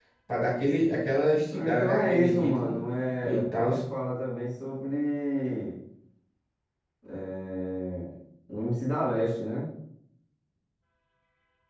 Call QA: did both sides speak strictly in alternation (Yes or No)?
No